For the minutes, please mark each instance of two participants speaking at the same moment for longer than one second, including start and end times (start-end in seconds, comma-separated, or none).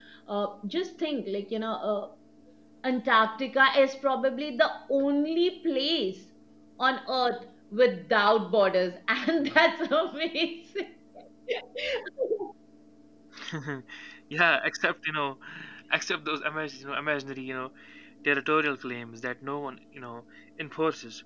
none